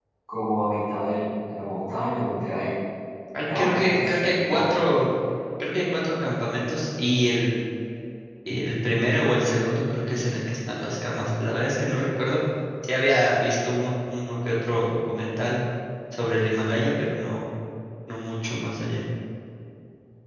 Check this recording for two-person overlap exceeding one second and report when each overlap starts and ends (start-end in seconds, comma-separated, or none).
3.5-4.8